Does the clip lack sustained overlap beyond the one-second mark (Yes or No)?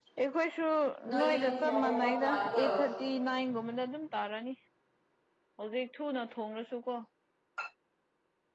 No